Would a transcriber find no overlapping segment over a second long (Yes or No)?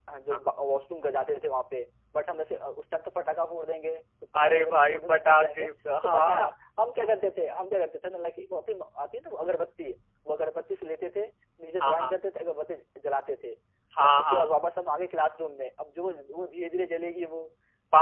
No